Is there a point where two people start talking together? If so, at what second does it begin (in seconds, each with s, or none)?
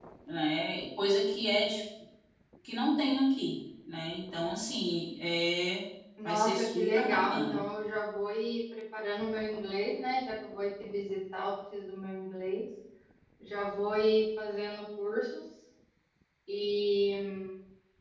6.2 s